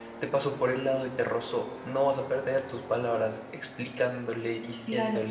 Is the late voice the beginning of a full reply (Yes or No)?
Yes